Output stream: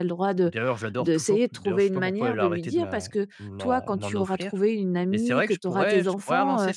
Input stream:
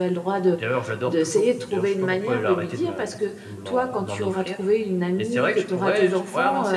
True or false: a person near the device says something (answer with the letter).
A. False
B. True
A